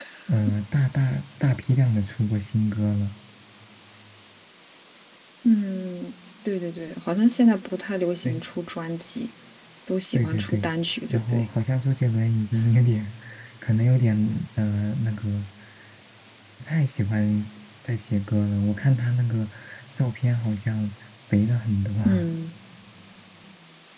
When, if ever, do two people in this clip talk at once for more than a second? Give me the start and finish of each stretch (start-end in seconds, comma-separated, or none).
none